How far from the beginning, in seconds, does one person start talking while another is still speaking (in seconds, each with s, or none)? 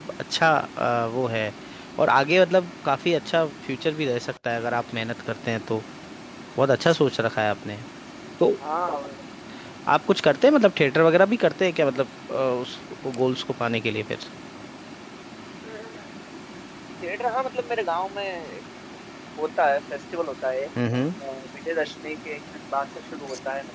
none